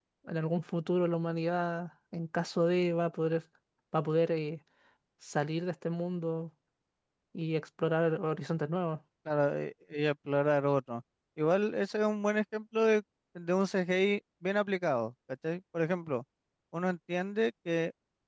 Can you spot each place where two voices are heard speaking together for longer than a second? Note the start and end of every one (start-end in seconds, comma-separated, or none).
none